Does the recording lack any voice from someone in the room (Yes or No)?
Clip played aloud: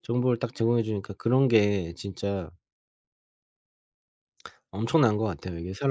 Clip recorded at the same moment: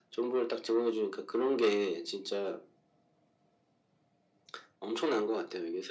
Yes